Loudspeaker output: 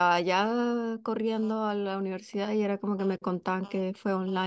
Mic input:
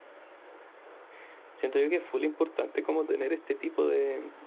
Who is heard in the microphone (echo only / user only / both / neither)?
user only